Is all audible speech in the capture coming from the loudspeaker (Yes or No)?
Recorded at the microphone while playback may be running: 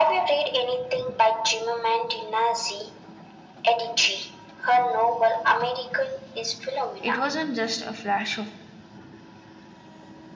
No